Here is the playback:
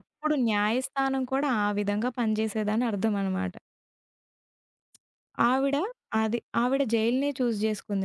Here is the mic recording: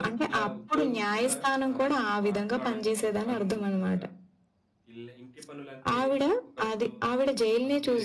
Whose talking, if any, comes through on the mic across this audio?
both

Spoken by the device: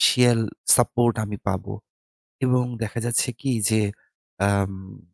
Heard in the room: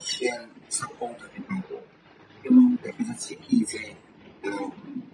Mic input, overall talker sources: echo only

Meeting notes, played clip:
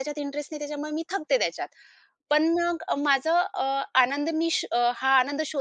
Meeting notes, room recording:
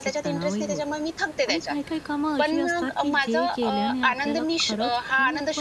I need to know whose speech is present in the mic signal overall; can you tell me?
both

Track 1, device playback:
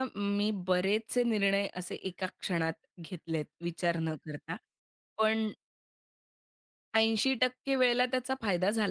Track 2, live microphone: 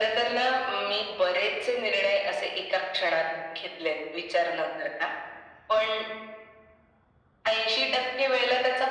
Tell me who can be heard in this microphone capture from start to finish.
echo only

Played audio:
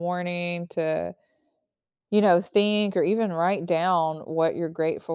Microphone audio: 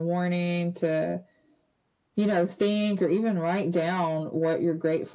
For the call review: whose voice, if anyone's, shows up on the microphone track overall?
echo only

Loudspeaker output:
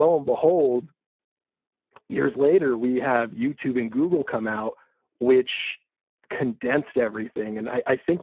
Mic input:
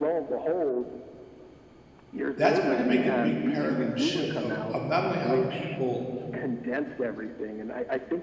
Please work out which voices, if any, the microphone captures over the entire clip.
both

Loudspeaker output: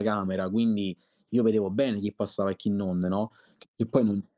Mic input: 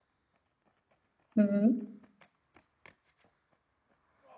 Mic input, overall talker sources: user only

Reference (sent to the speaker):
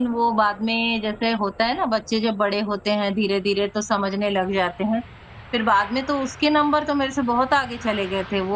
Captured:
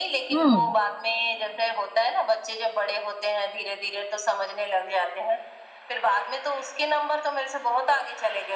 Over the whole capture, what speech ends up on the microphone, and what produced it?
both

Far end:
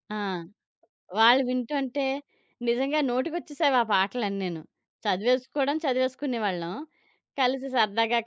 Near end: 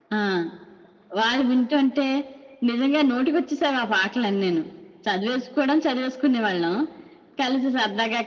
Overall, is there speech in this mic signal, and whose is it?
echo only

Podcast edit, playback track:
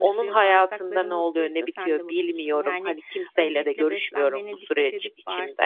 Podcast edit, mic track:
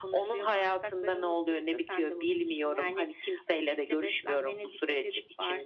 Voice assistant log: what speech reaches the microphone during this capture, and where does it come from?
echo only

